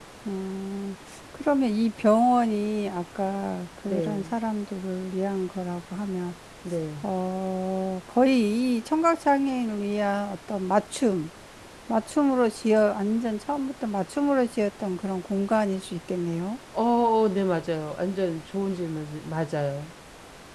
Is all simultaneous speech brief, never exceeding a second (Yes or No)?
Yes